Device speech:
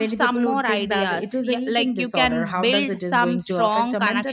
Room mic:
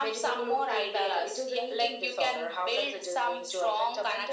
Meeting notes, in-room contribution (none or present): none